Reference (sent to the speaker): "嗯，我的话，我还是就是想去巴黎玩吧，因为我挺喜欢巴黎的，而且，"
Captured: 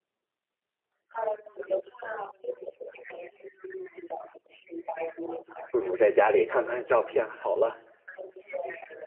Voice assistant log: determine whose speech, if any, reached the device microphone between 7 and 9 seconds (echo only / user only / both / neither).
both